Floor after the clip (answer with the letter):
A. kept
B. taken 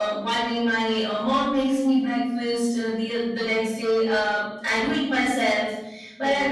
A